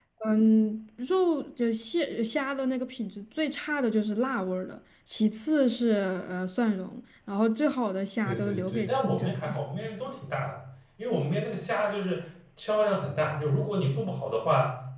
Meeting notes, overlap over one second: present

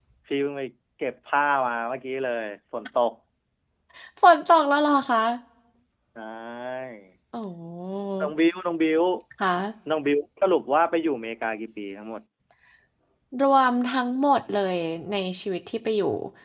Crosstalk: none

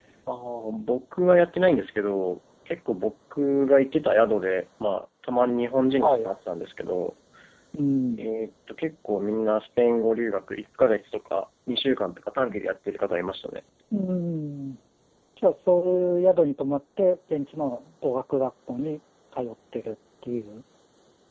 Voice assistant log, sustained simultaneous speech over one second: none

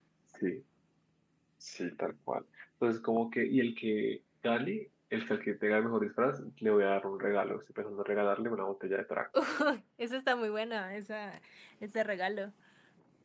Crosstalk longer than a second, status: none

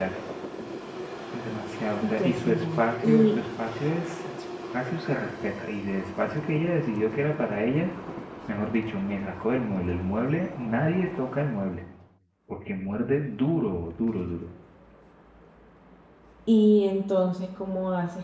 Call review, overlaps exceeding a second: present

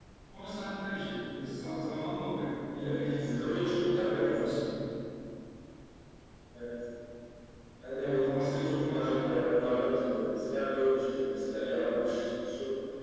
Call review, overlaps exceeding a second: present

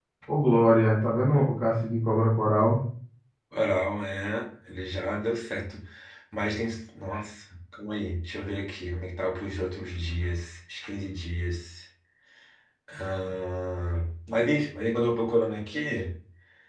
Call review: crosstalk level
none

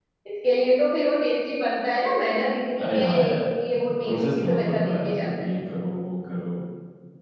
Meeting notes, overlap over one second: present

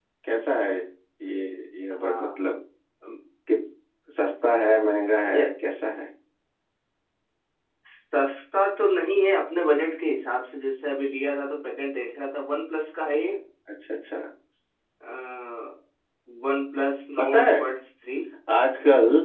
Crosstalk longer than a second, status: none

